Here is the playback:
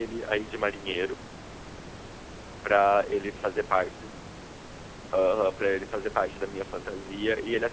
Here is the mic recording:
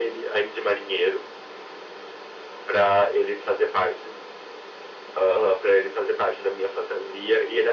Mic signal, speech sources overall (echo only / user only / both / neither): echo only